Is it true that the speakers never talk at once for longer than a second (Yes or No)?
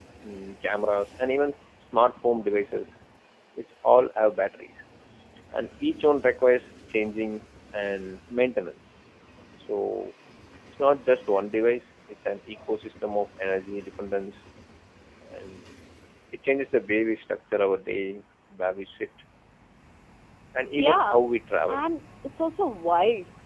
Yes